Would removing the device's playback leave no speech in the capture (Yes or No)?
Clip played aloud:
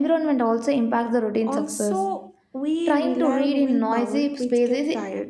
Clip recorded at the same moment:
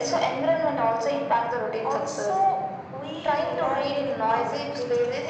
Yes